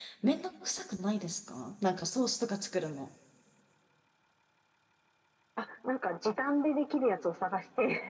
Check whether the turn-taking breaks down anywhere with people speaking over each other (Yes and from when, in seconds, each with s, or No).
No